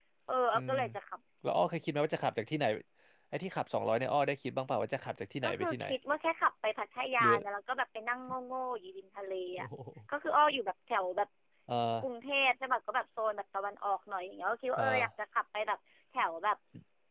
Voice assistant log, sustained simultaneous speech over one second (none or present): none